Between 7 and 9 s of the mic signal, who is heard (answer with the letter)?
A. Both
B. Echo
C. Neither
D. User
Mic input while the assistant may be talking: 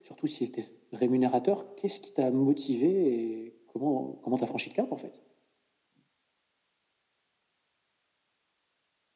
C